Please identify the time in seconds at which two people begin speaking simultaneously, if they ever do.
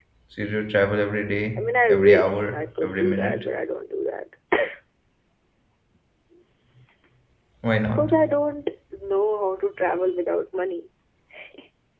1.6 s

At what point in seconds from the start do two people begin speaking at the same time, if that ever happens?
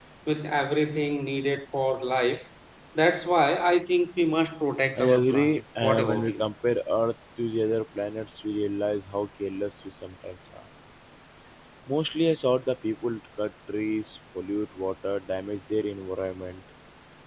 5.0 s

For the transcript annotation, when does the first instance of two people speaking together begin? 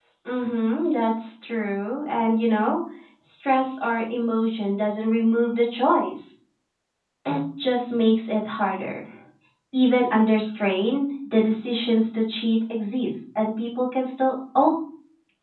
none

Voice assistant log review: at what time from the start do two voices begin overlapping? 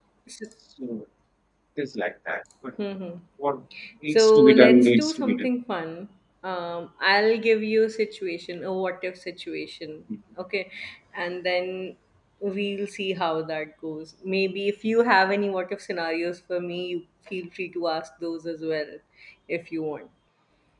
4.1 s

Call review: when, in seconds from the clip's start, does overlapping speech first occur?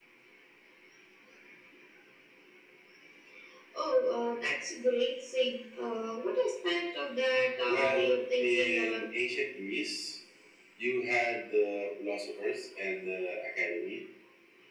7.7 s

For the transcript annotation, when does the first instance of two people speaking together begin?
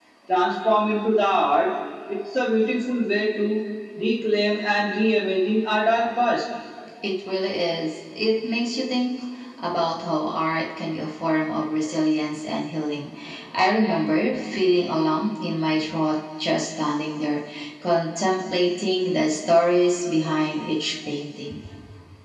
none

